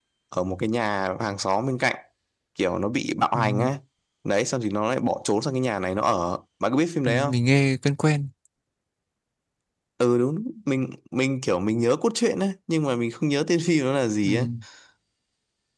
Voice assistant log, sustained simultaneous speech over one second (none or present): none